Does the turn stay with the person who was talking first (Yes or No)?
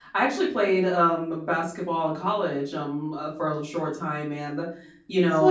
Yes